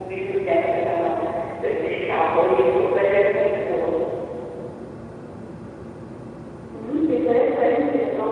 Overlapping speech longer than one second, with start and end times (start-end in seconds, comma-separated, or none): none